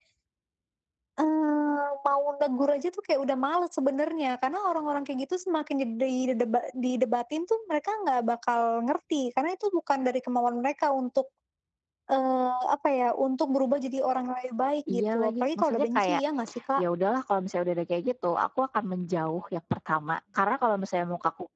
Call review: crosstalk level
present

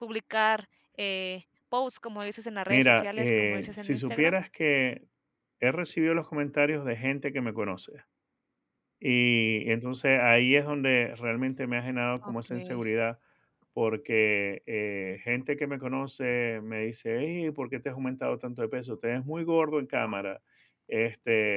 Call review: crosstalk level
present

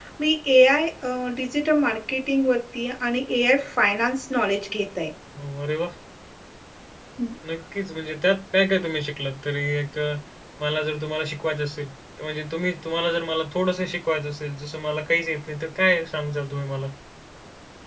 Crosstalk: none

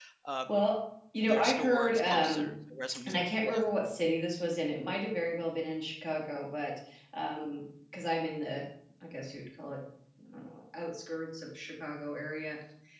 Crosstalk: present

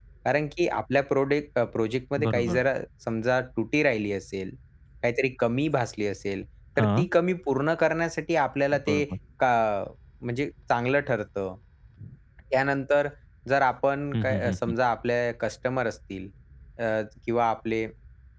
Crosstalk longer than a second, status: none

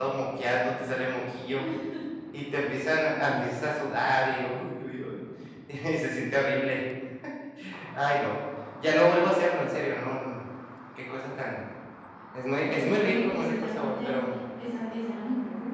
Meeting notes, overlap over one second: present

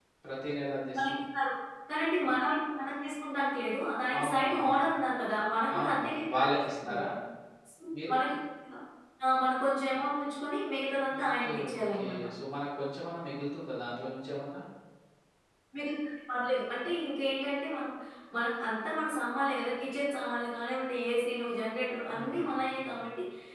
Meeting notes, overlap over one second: present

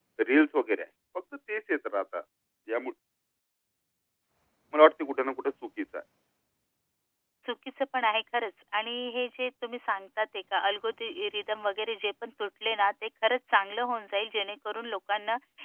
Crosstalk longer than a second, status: none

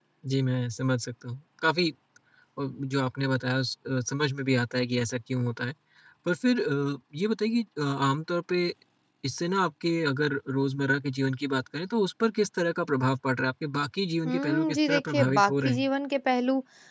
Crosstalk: present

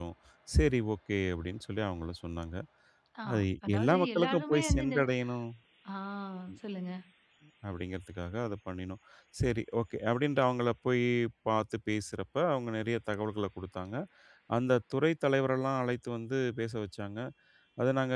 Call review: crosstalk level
present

